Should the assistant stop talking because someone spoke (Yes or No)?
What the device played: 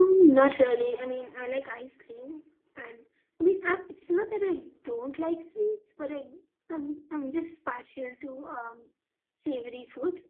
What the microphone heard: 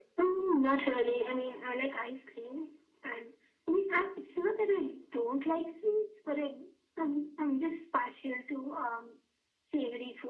No